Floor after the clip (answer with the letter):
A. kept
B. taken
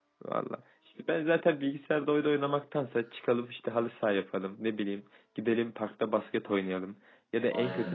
A